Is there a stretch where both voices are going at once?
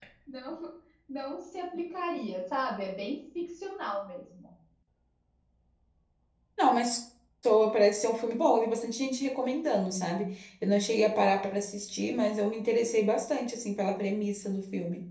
No

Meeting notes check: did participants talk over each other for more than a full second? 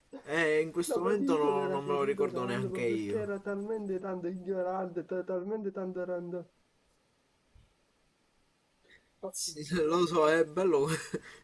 Yes, from 0.9 s

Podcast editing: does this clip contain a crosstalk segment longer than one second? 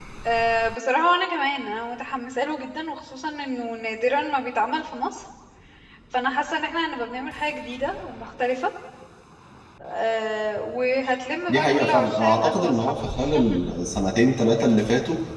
Yes, from 11.5 s

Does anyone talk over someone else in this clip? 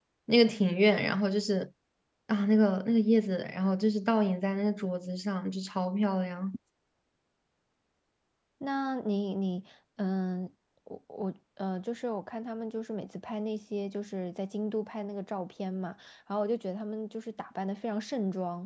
No

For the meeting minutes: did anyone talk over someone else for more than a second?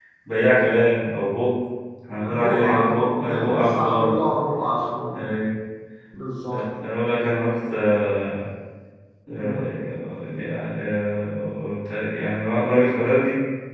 Yes, from 2.1 s

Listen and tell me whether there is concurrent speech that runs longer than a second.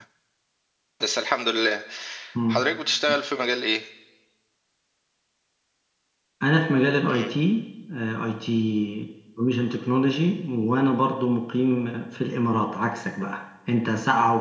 No

